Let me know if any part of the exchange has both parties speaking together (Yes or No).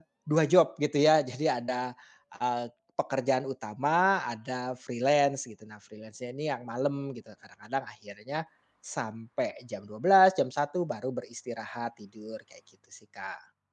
No